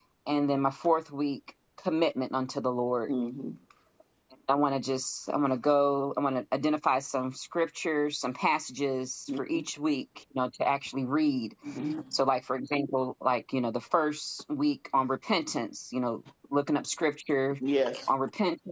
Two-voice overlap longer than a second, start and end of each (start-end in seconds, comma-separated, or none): none